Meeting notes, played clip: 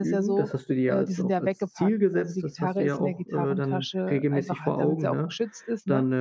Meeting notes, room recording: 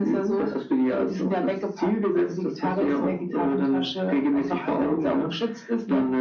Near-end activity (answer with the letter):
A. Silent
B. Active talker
A